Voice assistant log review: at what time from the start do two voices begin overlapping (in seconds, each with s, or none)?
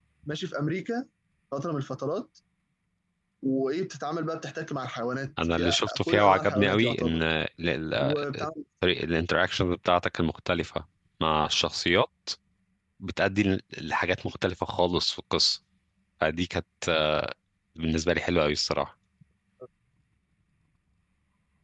5.5 s